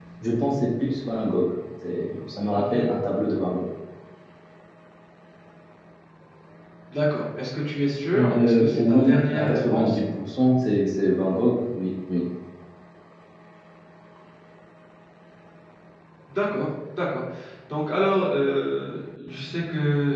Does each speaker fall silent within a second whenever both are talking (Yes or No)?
No